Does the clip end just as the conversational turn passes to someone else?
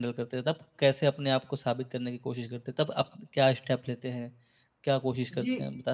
Yes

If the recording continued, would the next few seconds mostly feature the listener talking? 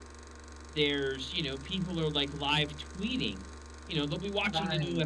No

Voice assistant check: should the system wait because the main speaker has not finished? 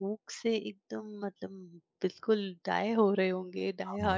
No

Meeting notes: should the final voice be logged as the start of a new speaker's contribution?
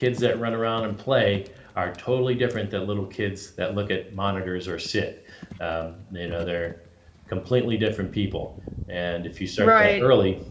No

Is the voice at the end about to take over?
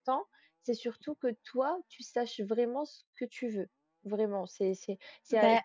No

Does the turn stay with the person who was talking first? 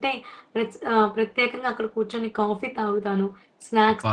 Yes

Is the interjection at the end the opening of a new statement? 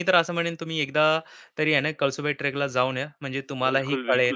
Yes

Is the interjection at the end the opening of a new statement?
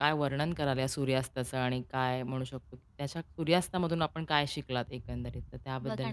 Yes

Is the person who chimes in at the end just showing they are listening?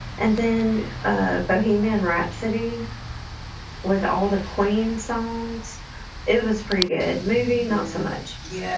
No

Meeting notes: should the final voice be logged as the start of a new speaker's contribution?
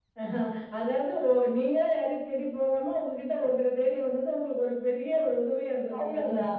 Yes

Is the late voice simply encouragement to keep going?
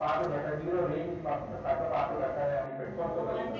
No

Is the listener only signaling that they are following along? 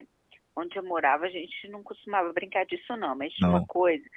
Yes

